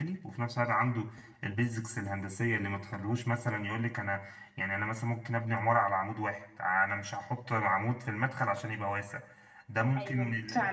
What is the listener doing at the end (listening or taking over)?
taking over